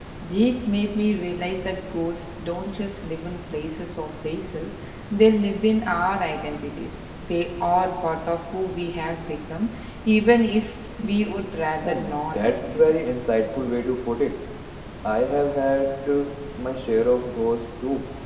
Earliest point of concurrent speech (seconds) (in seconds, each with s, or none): 11.8 s